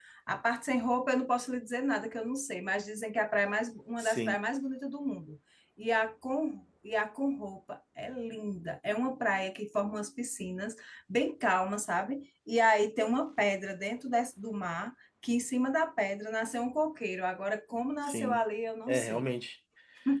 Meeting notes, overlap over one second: none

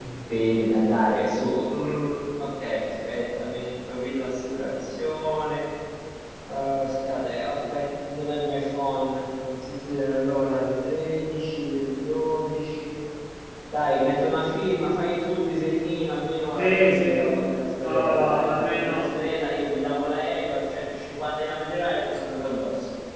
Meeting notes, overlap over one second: present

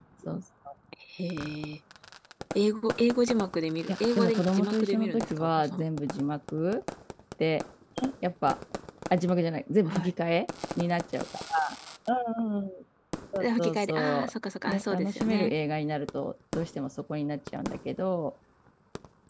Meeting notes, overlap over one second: present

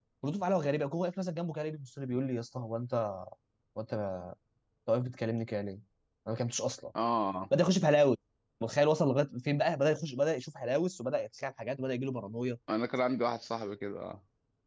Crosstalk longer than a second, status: none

